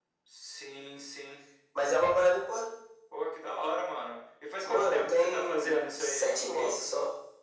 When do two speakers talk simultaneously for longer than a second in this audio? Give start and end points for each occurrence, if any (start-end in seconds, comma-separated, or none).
4.6-6.9